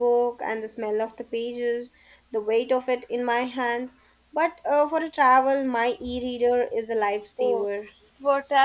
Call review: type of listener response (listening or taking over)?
taking over